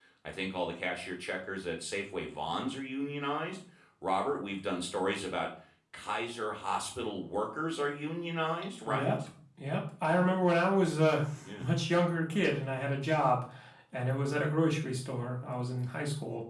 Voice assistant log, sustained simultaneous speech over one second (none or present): none